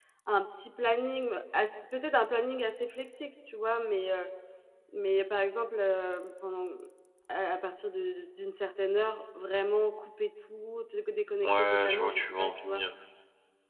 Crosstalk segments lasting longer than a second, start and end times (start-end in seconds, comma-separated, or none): 11.4-12.8